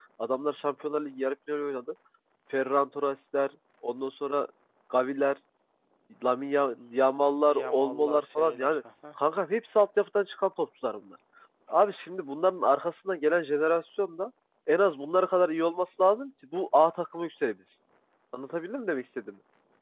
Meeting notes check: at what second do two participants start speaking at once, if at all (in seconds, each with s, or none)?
7.5 s